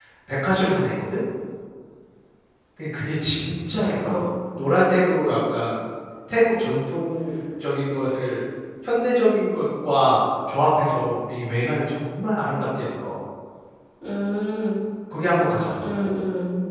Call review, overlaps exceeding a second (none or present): none